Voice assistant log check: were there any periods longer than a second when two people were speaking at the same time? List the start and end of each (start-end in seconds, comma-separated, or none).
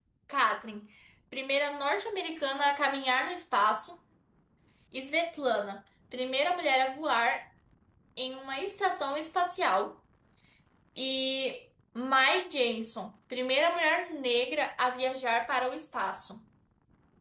none